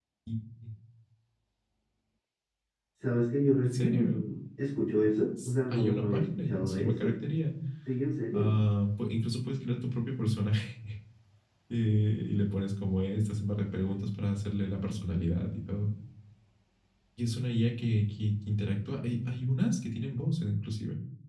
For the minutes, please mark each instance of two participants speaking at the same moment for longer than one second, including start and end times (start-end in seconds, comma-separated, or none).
5.7-7.1